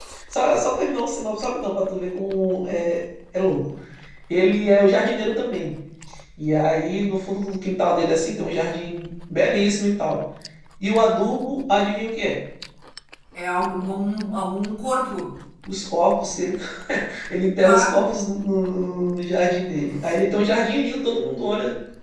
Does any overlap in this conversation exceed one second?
No

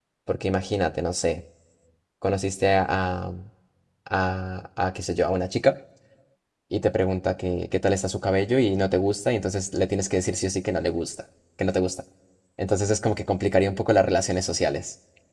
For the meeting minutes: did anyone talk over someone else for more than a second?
No

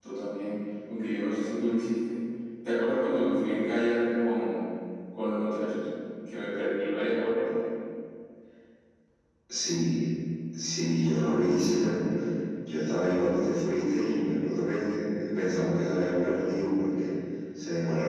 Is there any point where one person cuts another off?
No

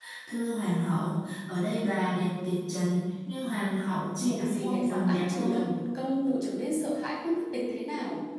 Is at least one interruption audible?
Yes, from 4.2 s

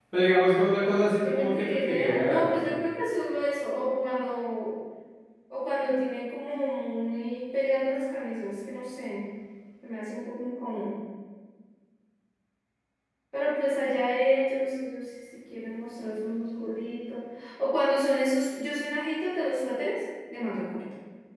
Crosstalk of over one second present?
Yes, from 1.2 s

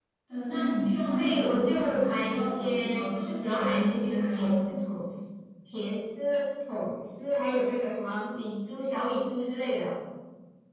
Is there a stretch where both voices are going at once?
Yes, from 1.2 s

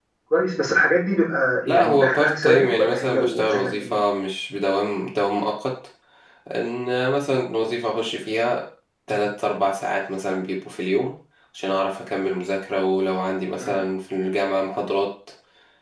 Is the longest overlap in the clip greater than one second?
Yes, from 1.6 s

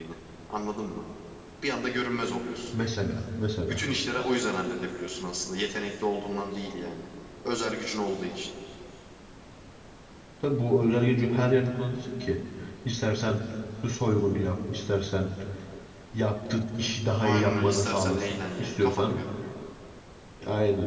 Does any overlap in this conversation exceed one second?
Yes, from 17.2 s

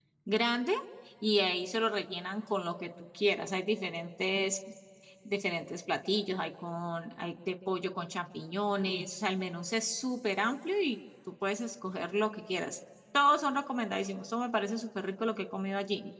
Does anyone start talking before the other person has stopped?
No

